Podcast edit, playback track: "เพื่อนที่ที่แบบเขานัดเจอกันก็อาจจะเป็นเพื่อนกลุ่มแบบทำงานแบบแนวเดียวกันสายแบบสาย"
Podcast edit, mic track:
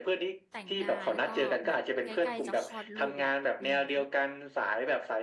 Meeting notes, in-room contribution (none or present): present